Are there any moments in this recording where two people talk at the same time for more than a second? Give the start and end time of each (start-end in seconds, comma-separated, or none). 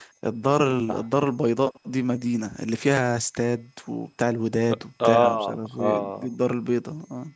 5.0-6.3